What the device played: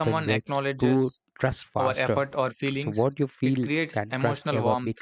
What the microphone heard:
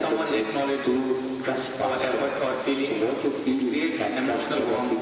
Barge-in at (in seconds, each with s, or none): none